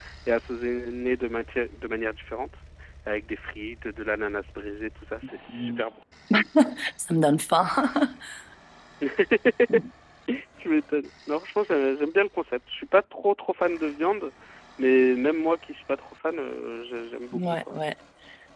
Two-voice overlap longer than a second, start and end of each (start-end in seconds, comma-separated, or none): none